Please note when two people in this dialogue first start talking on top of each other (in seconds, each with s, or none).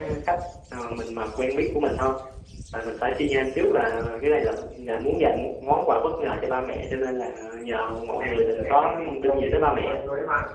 8.2 s